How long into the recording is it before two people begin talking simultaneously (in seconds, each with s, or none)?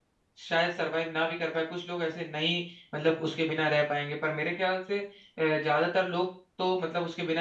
none